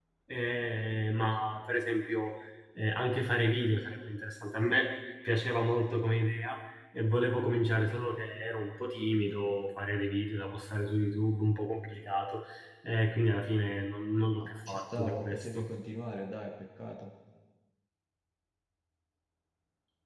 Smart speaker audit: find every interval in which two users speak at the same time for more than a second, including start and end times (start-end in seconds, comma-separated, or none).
14.4-15.7